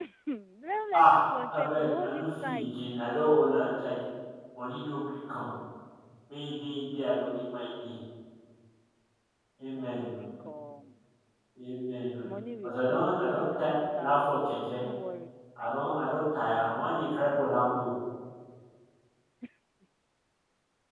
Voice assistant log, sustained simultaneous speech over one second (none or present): present